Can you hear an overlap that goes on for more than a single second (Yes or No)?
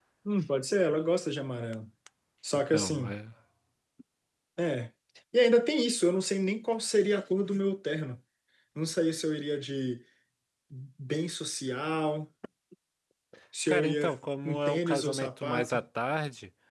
Yes